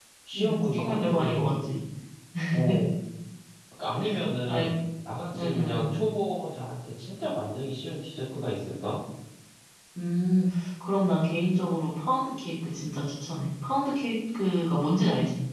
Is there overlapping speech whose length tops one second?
Yes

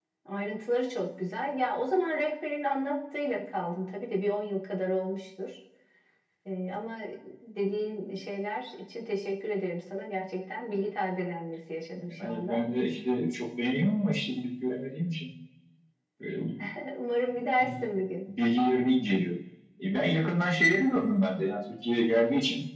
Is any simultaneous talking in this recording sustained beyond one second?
No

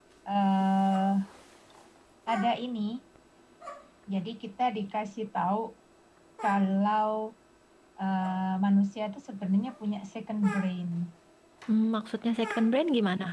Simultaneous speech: No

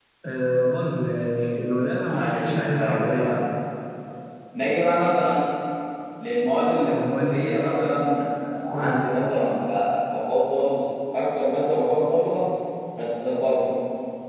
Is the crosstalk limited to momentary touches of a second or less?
No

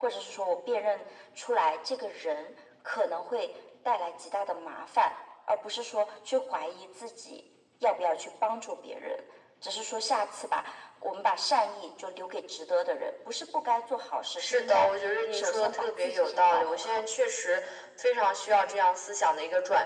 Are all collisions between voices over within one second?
No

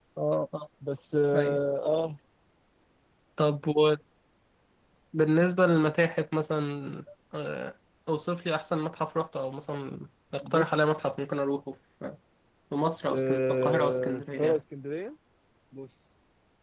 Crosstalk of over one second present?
Yes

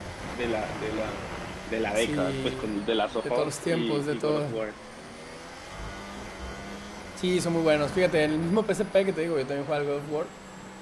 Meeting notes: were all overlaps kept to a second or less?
No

